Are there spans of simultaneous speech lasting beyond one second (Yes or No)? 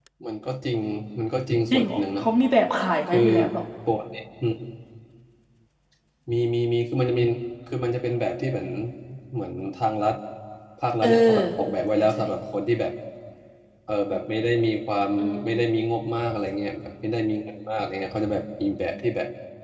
No